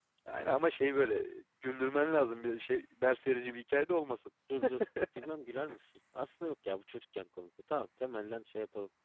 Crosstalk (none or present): none